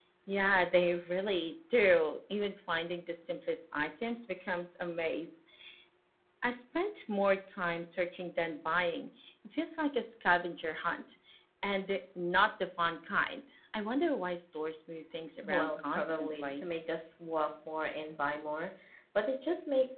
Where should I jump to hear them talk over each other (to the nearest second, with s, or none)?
15 s